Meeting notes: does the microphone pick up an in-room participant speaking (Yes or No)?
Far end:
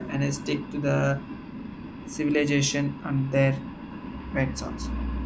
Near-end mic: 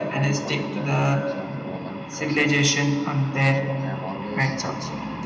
Yes